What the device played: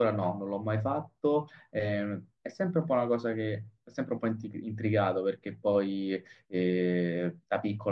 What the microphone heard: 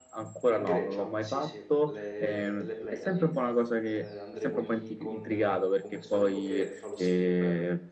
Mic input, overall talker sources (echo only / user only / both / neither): both